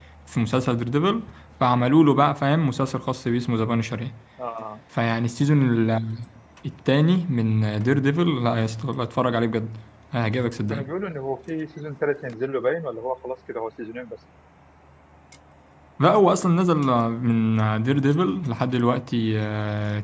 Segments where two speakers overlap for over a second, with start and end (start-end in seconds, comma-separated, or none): none